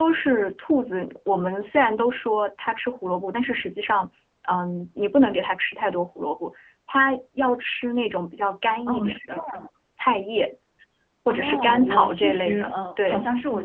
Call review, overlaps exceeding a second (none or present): present